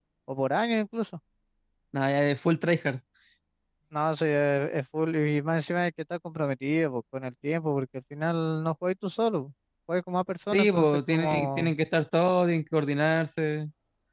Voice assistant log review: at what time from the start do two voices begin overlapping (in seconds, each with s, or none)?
10.5 s